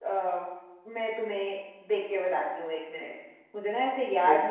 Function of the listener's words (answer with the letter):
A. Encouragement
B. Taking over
A